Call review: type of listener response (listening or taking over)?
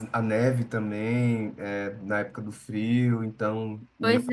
listening